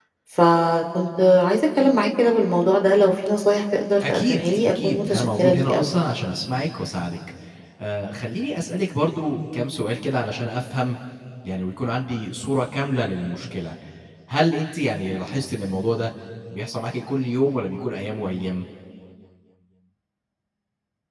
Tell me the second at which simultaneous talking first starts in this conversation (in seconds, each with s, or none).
4.0 s